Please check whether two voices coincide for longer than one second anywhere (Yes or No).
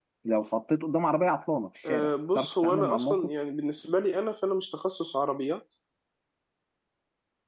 Yes